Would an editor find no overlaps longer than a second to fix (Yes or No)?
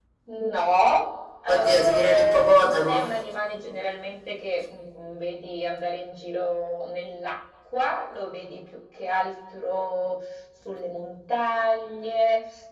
No